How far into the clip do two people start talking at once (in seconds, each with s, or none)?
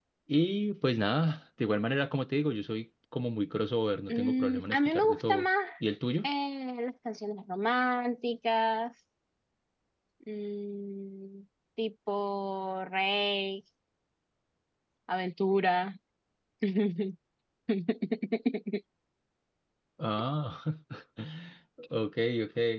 4.1 s